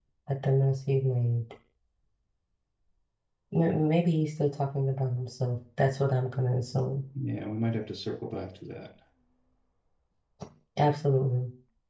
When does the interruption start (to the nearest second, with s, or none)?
none